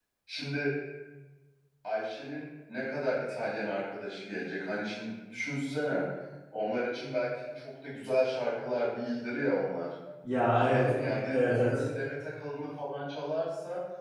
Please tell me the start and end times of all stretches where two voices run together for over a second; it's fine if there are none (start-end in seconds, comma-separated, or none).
10.5-11.8